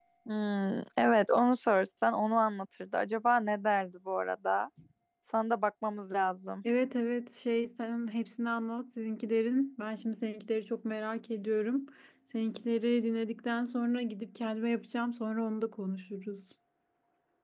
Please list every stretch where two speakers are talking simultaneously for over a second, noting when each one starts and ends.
none

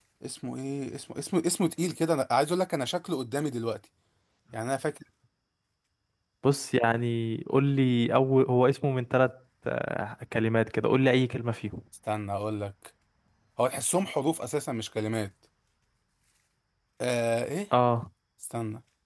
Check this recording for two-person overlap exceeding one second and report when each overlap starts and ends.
none

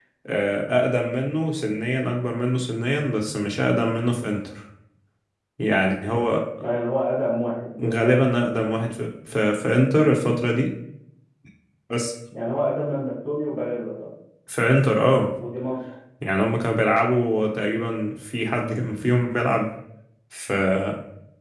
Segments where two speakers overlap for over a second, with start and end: none

